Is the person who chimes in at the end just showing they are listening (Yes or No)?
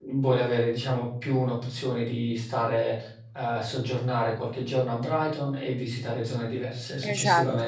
No